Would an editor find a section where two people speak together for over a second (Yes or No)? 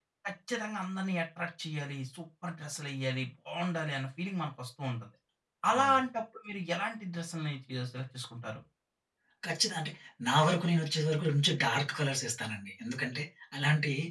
No